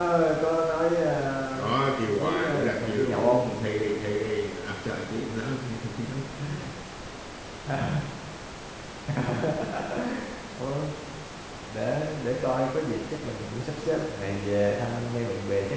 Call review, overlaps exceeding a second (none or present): present